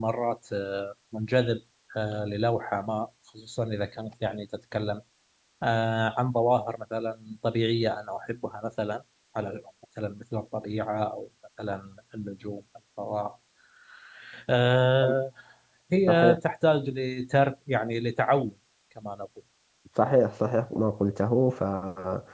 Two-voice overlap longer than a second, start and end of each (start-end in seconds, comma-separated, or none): none